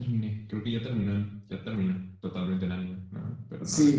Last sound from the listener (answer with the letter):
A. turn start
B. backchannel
A